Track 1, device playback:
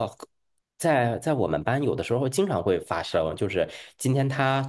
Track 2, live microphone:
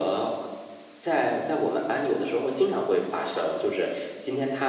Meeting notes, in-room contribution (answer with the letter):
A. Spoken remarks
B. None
B